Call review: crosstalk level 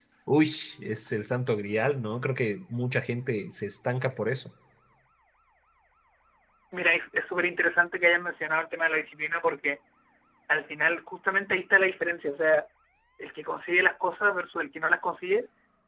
none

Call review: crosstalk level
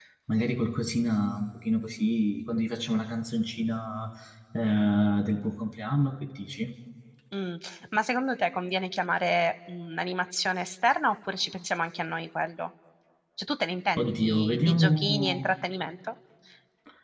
present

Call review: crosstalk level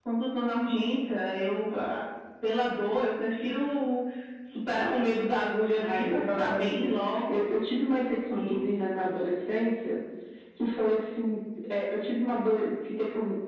present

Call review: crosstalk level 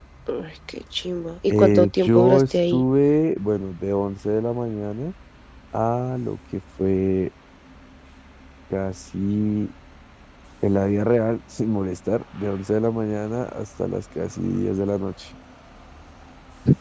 present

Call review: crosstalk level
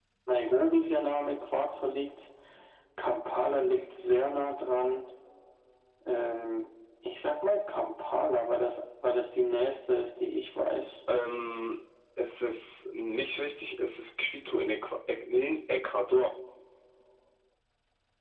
none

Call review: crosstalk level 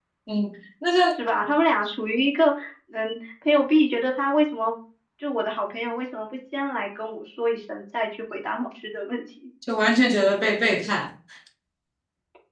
none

